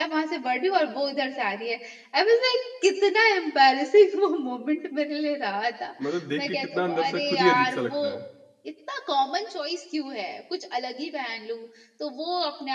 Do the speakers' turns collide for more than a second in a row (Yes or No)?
Yes